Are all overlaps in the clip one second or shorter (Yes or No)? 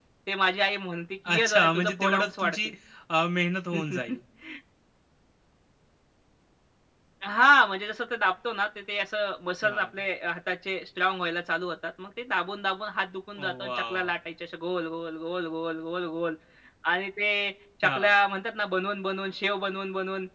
No